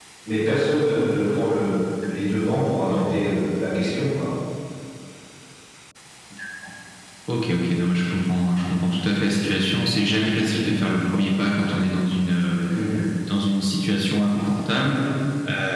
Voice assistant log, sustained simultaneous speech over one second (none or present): none